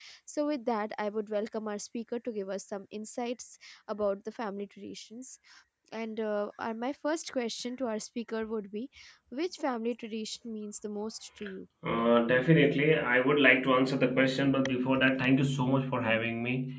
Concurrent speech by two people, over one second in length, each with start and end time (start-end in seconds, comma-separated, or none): none